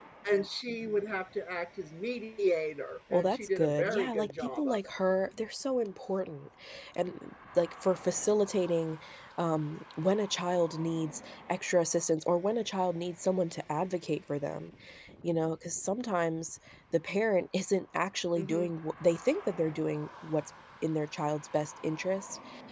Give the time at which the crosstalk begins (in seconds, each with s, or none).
3.1 s